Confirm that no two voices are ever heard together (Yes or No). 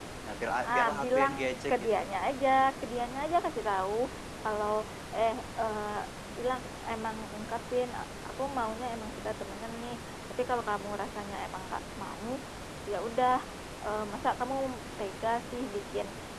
No